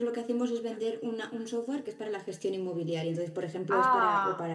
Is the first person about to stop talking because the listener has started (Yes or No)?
No